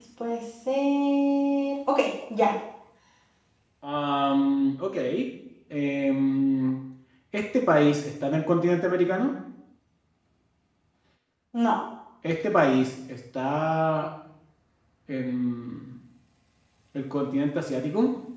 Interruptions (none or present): none